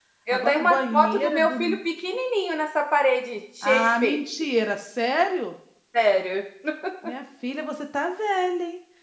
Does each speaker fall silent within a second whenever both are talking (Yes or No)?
No